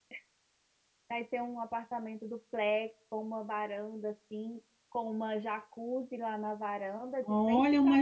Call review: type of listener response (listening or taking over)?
taking over